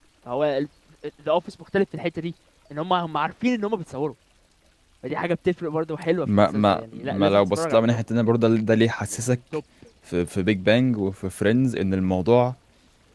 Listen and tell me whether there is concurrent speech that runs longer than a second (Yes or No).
Yes